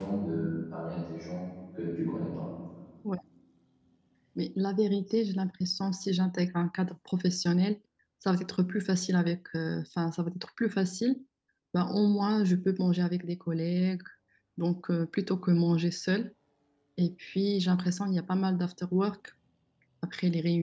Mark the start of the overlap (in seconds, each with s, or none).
none